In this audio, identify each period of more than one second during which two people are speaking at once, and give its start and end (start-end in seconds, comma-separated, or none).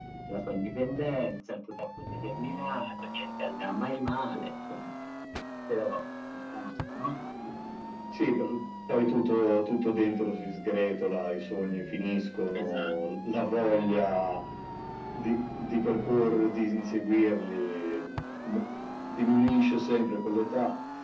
none